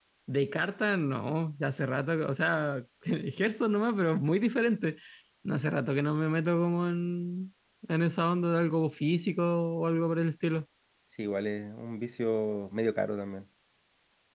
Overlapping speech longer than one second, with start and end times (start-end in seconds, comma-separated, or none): none